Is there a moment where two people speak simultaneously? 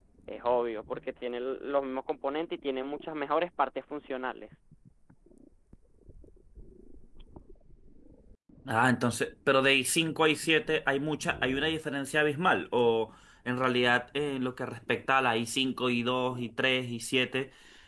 No

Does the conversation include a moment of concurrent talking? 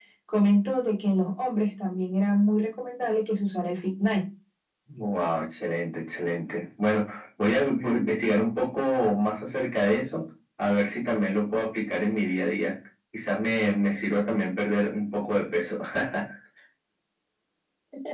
No

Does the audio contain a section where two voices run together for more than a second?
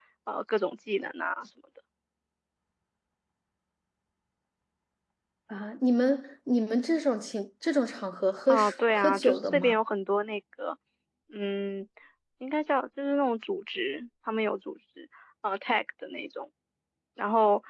Yes, from 8.5 s

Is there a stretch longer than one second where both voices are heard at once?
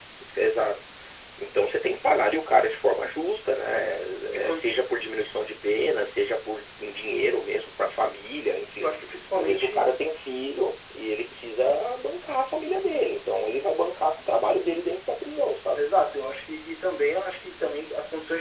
No

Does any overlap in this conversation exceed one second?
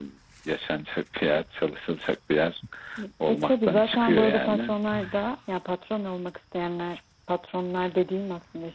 Yes, from 3.3 s

